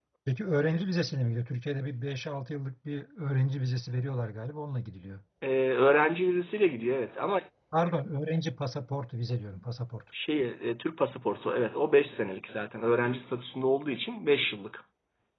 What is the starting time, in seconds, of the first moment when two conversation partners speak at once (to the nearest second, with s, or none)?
none